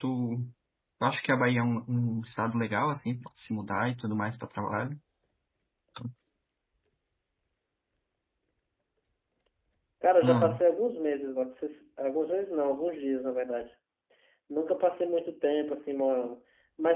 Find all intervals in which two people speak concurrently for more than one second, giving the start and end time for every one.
none

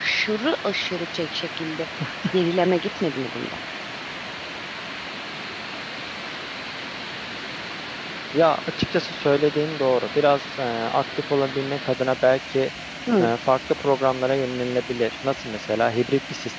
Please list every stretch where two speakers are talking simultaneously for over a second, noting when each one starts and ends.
none

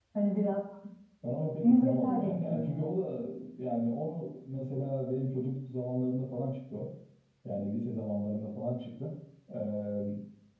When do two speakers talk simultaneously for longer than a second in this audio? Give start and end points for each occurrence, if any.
1.6-3.0

